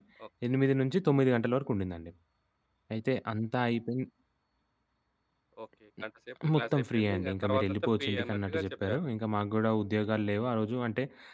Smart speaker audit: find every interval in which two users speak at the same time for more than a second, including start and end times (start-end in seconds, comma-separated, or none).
6.5-9.0